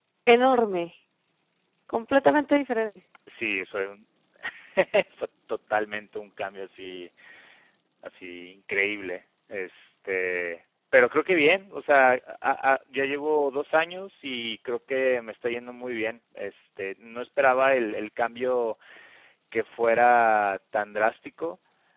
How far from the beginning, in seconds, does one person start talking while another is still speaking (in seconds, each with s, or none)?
none